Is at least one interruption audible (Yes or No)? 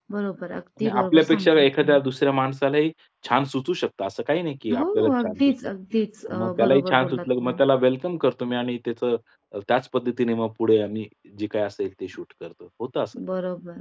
Yes